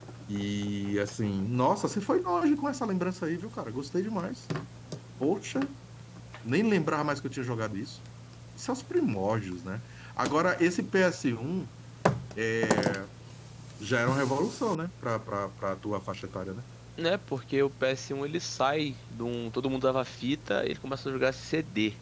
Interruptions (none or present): none